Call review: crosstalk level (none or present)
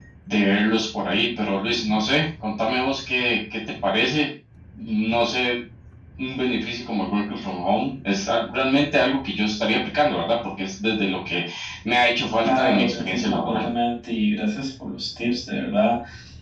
present